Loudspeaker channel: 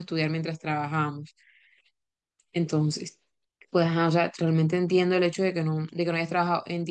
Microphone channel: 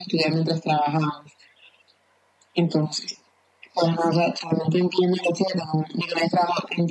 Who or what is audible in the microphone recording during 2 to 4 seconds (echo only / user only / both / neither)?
echo only